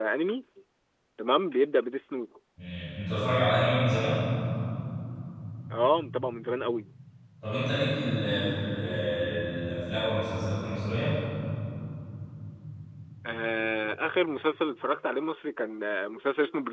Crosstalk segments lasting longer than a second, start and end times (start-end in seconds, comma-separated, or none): none